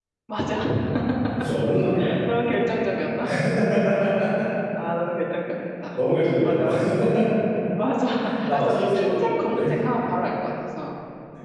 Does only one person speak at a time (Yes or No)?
No